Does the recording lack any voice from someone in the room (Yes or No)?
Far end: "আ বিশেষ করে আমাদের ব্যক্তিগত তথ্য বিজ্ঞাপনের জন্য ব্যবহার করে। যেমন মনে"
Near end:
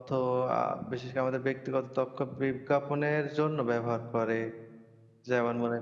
Yes